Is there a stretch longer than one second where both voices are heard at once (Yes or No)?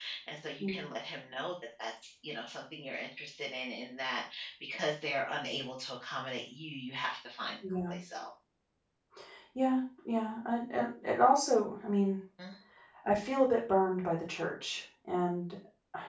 No